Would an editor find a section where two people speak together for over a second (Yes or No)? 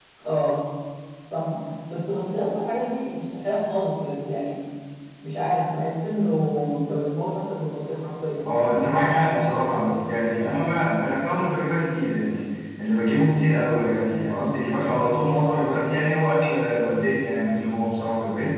No